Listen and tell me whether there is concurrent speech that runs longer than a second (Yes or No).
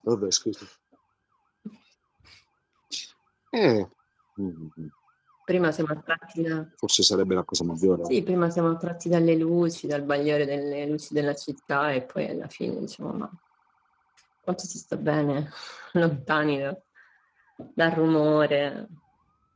No